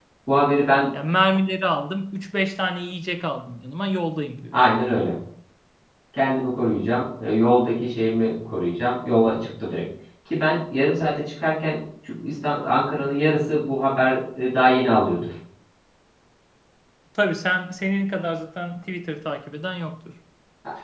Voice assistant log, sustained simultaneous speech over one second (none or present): none